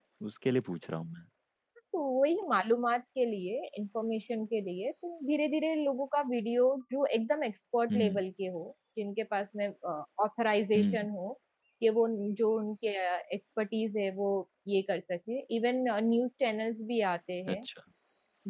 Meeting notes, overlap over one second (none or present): none